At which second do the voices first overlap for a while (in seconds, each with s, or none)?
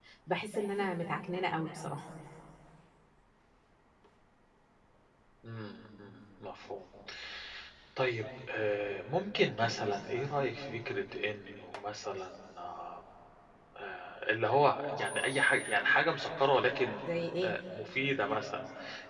none